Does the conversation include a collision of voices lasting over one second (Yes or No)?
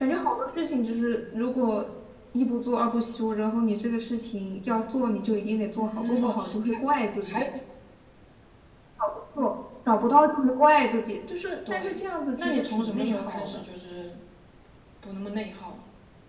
Yes